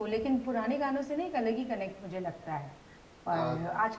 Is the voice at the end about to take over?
No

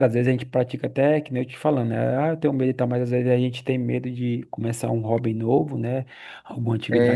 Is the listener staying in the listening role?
Yes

